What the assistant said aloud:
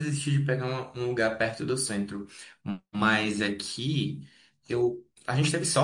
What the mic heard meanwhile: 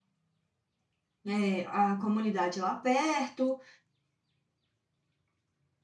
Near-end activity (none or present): present